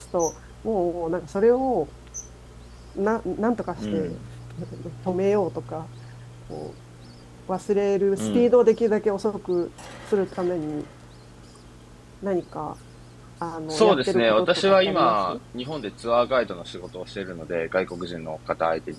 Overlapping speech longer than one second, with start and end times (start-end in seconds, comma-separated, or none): 13.7-15.4